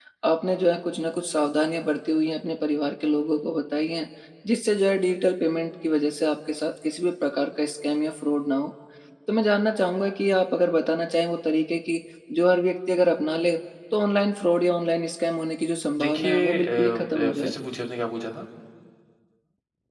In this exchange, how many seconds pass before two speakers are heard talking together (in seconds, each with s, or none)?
16.0 s